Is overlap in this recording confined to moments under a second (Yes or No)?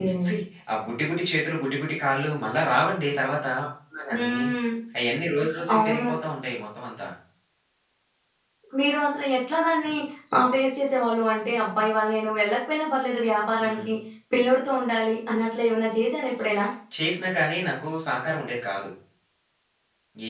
Yes